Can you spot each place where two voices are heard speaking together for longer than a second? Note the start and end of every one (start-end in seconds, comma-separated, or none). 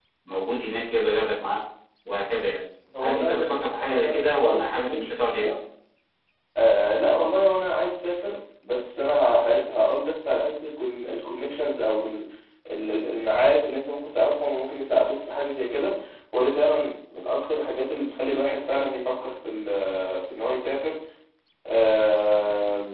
3.0-5.5